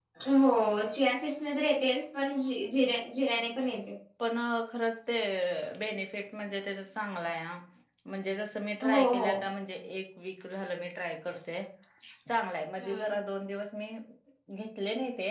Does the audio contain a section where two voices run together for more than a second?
No

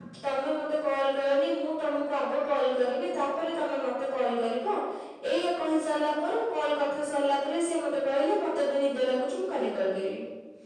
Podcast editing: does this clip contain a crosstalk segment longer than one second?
No

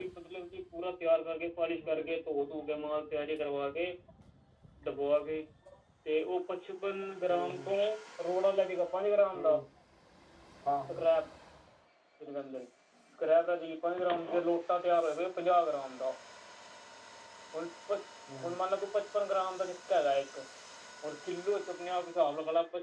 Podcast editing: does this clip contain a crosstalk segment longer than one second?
No

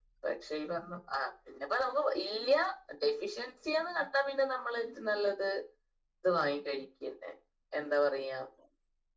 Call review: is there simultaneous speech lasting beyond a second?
No

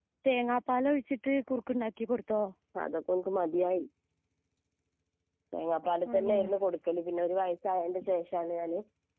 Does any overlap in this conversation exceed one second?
No

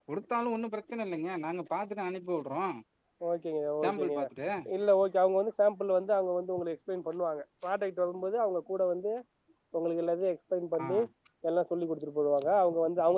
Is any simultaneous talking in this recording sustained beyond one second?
No

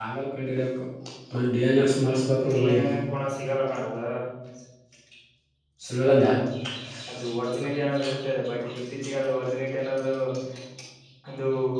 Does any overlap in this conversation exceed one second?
No

